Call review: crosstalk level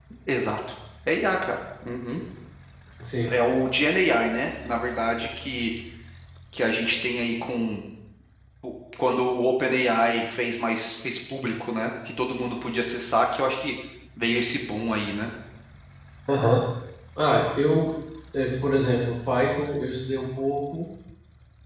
none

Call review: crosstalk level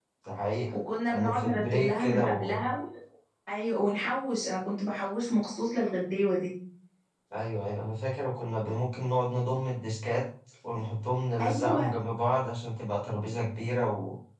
present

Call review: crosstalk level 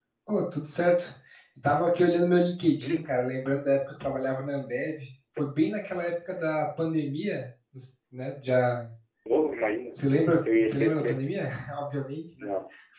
present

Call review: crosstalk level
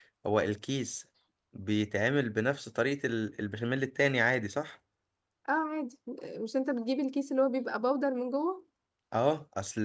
none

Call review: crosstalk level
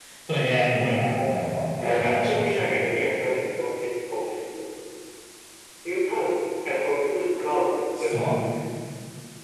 present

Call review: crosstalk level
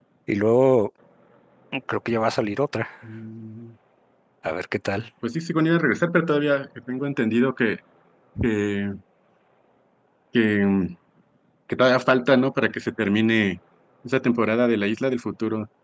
none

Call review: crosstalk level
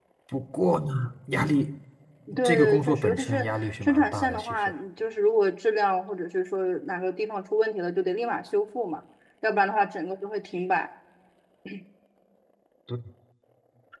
present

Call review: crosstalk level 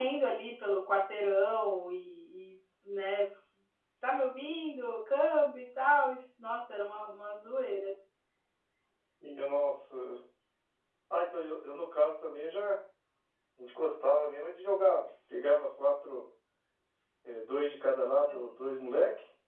none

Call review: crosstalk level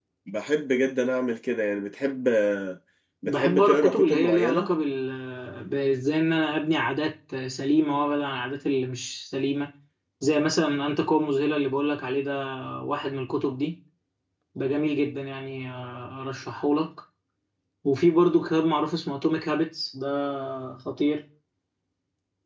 present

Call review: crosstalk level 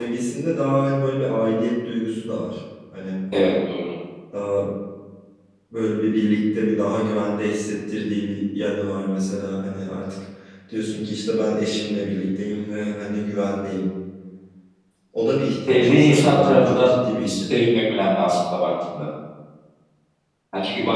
present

